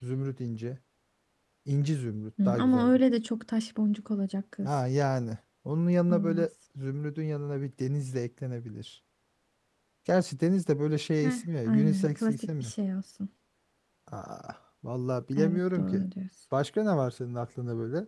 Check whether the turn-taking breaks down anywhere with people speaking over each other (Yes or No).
Yes